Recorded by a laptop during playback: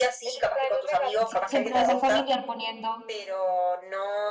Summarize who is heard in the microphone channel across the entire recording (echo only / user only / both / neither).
both